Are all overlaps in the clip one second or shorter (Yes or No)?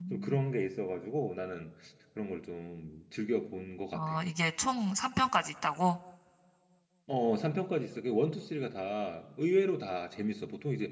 Yes